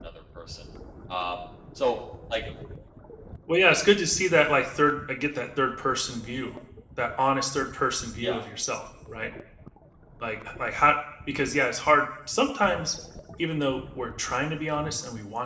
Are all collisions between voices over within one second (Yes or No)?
Yes